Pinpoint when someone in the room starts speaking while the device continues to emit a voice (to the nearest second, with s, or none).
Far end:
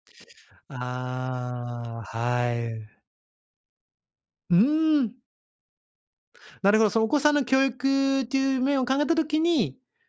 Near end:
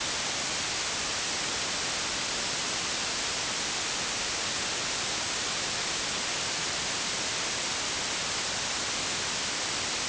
none